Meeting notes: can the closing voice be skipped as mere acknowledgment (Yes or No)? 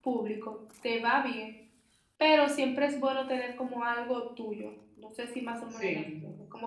Yes